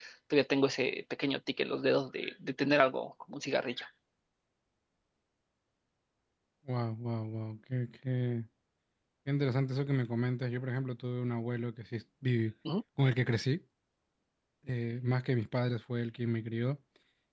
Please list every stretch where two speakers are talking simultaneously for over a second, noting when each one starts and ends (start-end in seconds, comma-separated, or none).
none